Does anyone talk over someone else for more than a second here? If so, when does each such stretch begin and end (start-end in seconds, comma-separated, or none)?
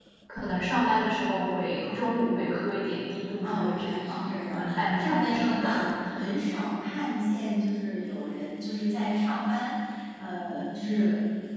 3.4-5.8